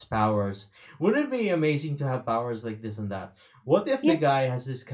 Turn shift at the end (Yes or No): No